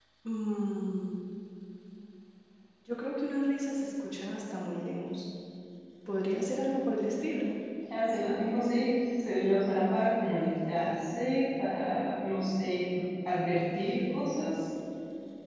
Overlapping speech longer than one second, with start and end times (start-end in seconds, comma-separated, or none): none